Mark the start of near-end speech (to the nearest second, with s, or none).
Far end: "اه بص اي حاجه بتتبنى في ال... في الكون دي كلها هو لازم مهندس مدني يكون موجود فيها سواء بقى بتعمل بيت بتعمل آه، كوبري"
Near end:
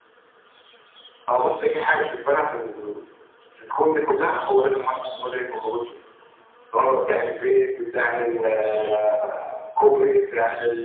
none